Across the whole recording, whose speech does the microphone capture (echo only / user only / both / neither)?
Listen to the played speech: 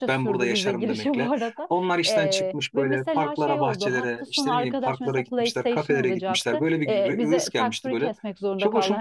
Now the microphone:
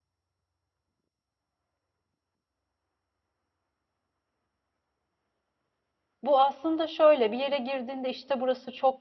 user only